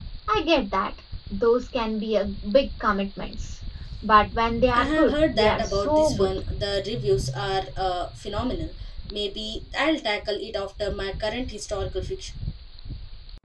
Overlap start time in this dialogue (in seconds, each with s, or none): 4.7 s